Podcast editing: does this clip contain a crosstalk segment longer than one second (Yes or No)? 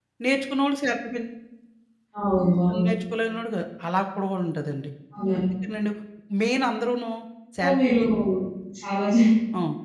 No